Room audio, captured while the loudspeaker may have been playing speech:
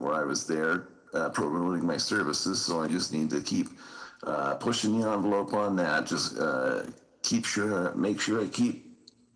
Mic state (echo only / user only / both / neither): echo only